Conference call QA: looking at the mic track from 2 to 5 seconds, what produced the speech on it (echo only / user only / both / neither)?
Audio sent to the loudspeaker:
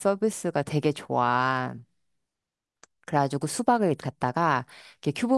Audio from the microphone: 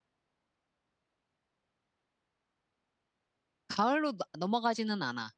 user only